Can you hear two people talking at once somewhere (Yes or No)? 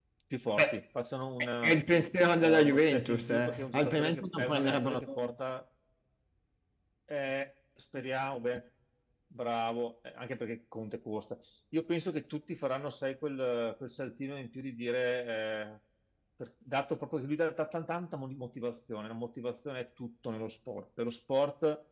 Yes